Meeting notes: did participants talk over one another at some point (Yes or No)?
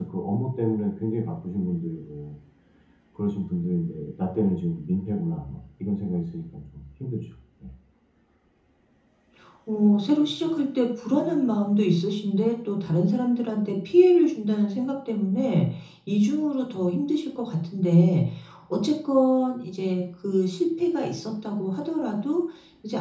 No